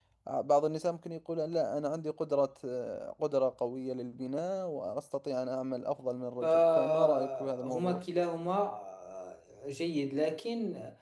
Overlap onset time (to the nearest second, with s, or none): 6 s